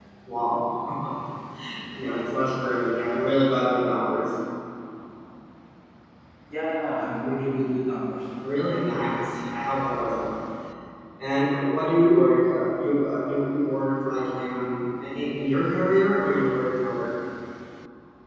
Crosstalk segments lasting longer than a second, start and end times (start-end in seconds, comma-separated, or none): none